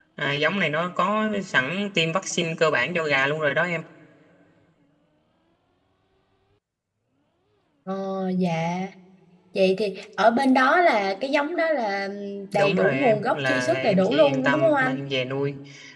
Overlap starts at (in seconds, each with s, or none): 12.5 s